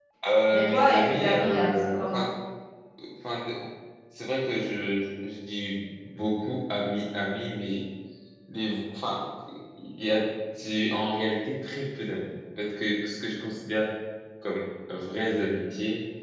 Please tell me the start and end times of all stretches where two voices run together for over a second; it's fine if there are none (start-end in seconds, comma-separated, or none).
0.5-2.2